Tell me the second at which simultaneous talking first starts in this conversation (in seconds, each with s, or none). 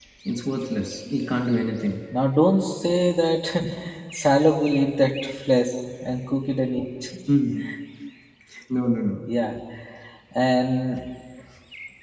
none